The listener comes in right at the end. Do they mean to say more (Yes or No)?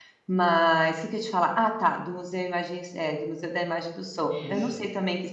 No